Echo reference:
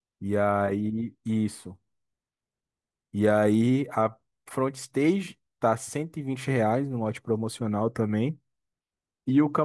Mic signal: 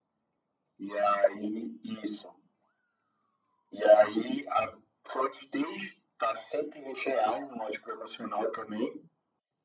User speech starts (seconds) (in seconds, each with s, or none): none